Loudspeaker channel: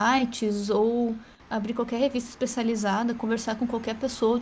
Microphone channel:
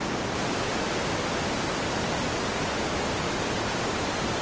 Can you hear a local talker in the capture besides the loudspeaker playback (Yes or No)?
No